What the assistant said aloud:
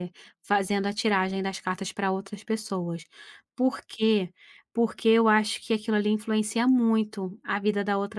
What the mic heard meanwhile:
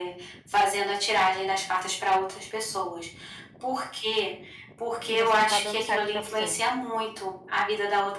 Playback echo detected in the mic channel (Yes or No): Yes